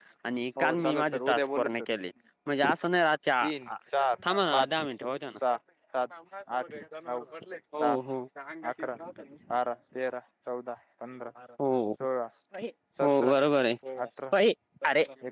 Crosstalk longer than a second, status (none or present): present